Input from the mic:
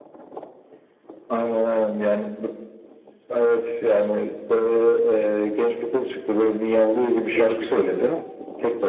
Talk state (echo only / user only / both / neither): both